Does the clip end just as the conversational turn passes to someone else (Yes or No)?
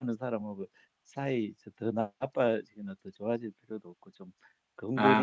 No